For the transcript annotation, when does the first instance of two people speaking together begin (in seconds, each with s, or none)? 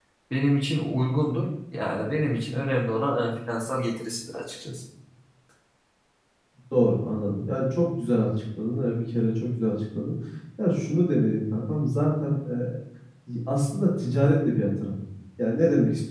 none